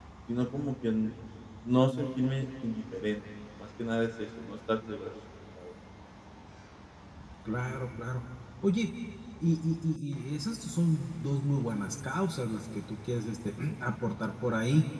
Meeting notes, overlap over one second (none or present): none